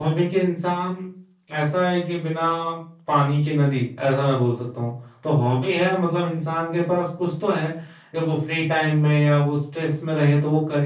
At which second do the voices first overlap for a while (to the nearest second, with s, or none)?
none